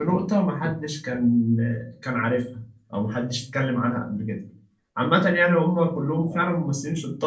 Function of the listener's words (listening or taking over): listening